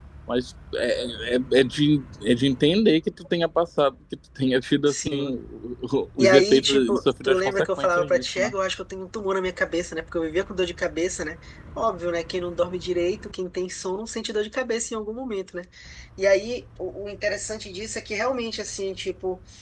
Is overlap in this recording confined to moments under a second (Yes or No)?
No